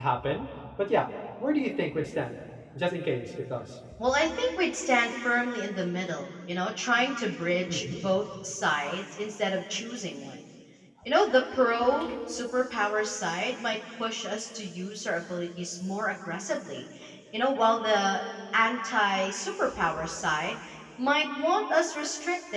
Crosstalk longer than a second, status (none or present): none